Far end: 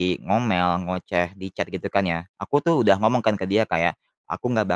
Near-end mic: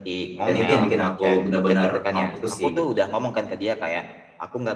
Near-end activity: present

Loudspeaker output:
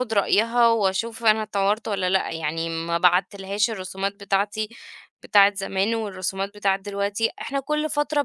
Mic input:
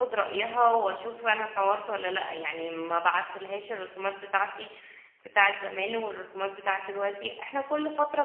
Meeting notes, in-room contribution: none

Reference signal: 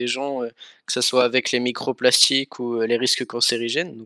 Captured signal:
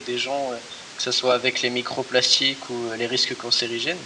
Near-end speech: none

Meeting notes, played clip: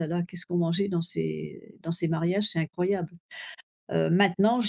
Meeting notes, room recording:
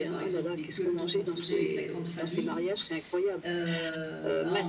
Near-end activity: present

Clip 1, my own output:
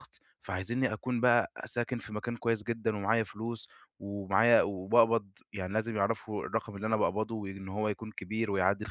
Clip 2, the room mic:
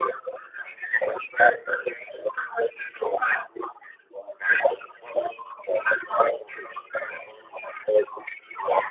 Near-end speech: none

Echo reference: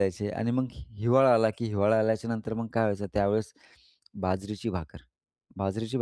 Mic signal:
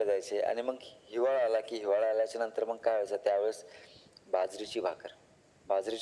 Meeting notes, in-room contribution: none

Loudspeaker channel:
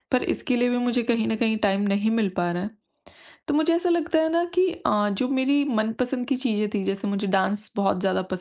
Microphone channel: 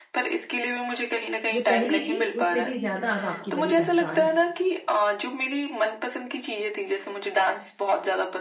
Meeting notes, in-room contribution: present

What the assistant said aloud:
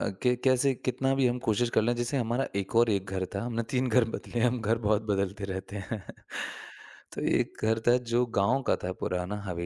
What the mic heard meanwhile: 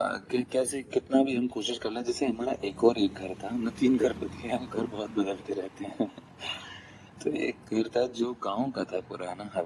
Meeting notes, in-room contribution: none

